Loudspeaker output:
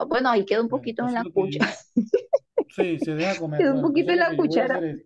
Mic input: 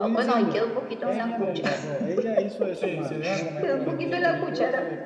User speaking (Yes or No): Yes